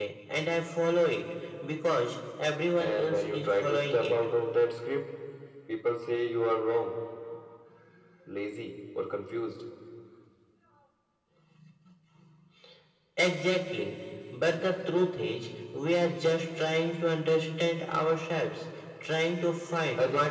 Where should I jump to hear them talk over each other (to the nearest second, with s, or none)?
3 s